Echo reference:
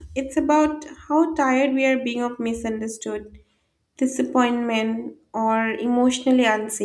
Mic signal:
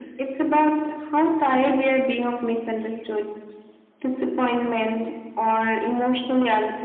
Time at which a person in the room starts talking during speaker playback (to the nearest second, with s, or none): none